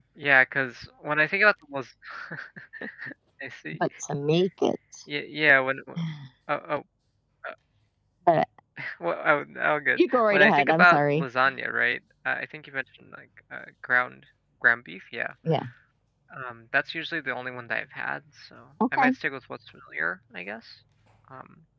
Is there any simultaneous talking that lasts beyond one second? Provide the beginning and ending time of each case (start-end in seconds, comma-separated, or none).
10.0-11.2